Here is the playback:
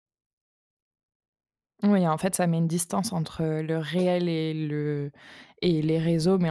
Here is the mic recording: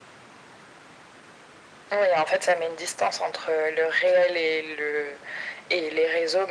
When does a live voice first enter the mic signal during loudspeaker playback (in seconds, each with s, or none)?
none